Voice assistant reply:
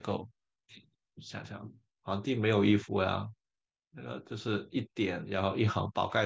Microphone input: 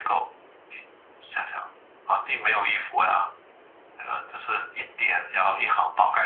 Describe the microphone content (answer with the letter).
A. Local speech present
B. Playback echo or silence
B